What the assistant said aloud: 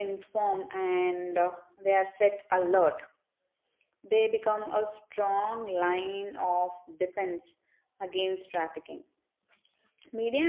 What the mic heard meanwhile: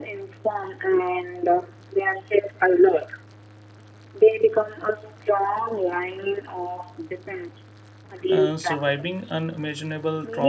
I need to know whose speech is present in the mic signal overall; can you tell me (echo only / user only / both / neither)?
both